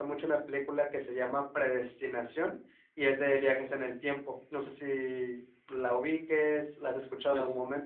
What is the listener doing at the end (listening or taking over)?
taking over